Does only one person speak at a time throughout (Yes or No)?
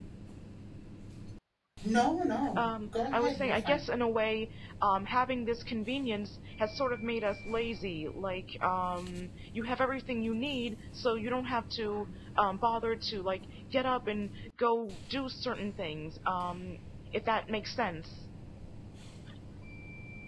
No